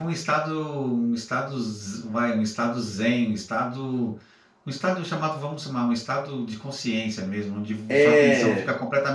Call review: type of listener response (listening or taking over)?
listening